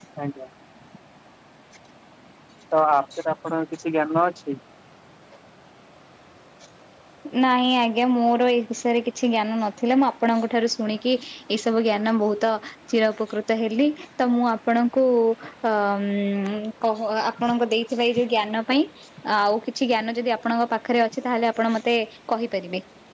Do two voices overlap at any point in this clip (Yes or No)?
No